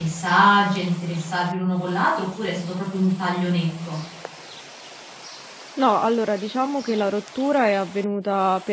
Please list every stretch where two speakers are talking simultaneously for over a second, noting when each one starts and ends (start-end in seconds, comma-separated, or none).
none